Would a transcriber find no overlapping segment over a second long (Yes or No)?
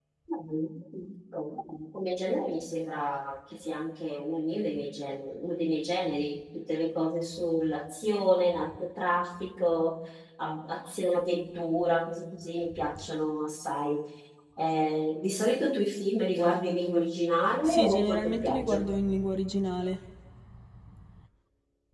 No